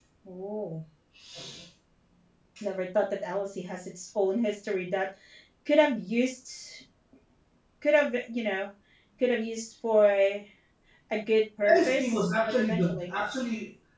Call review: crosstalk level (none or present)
present